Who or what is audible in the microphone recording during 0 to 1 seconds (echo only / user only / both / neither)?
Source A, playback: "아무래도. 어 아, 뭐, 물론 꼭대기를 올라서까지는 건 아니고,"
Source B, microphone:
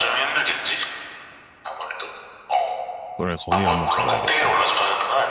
echo only